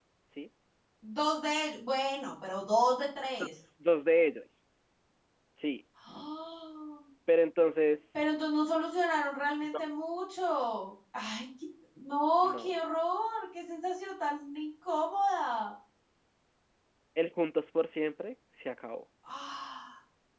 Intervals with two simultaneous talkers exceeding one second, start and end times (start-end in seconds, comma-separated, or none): none